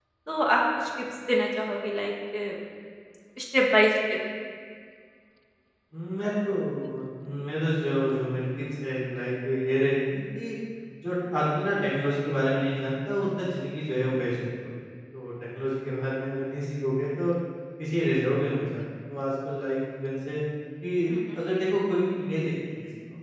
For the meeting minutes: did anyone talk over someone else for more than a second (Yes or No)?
No